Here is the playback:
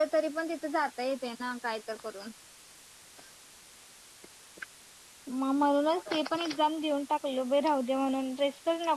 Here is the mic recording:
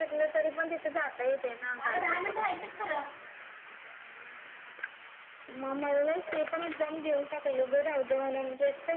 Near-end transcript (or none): अगं दहा मिनिटं व्हायचेत खरं